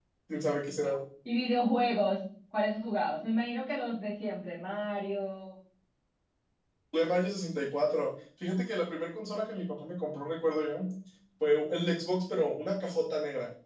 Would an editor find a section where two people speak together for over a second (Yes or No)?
No